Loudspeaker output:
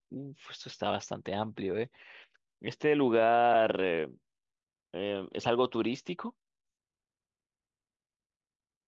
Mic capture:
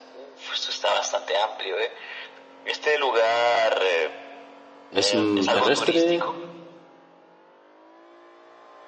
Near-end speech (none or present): present